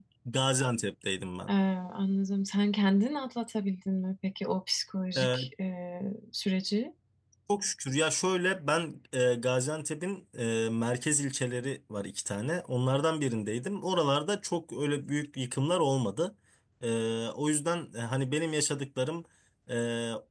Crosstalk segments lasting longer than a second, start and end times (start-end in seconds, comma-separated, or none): none